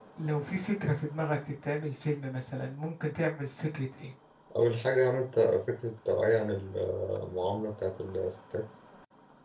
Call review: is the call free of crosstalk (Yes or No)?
Yes